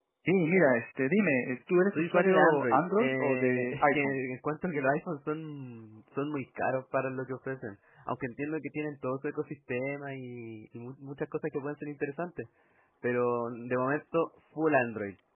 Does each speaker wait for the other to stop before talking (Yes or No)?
No